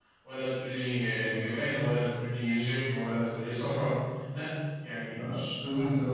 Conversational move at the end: taking over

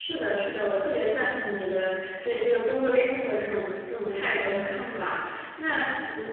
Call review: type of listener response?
listening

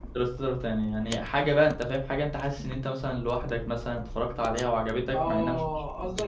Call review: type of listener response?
taking over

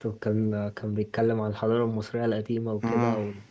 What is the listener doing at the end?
listening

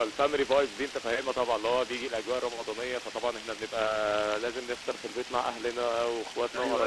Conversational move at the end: taking over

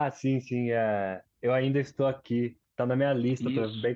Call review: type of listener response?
listening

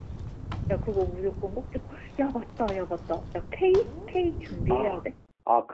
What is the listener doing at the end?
taking over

